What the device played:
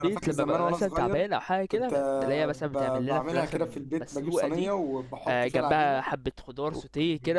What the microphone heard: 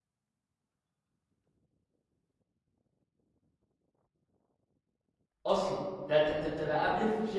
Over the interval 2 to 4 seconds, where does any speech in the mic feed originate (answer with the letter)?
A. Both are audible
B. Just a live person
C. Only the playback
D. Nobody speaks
D